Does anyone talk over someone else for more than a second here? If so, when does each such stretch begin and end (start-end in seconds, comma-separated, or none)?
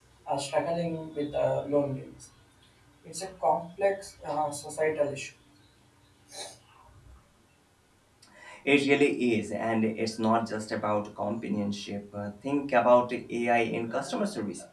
none